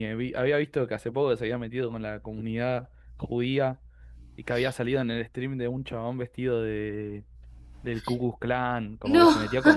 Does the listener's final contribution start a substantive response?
No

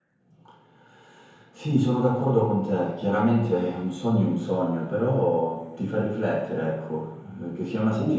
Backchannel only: Yes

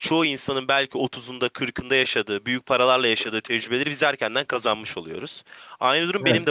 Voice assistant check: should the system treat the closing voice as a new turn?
No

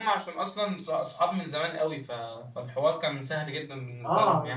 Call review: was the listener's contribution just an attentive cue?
No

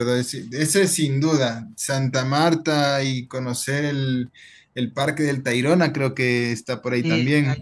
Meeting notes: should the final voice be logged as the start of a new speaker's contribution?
Yes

